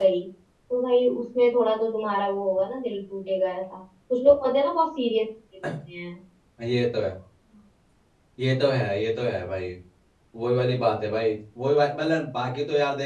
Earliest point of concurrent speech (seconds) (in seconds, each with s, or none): none